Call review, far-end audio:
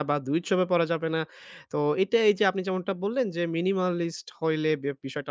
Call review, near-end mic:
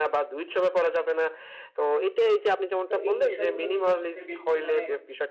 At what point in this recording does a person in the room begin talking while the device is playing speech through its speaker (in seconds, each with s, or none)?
2.9 s